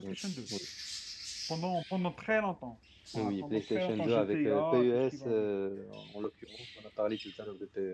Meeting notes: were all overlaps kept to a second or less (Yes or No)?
No